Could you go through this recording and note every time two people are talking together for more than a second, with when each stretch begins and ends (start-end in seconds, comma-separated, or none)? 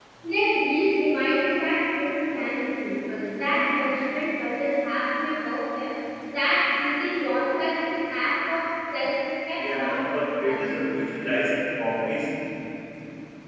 9.5-10.8